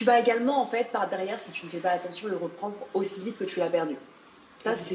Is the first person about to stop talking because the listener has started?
No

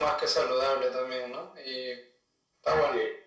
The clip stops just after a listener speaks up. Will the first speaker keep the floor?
No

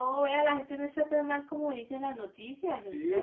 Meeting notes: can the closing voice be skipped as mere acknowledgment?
No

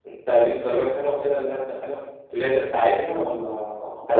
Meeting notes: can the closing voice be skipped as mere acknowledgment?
No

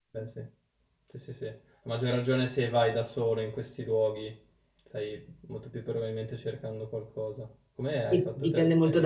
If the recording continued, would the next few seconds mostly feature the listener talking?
Yes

